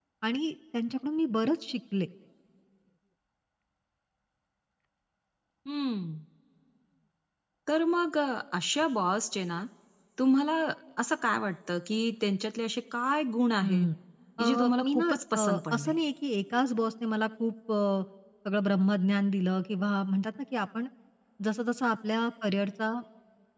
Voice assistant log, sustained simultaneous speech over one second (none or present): present